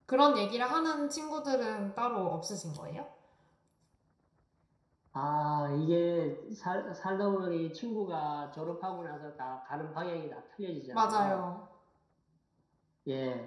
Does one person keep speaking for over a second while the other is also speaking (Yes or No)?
No